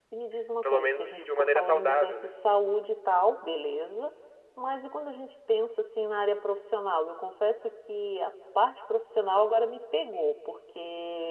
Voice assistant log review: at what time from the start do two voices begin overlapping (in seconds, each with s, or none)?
0.6 s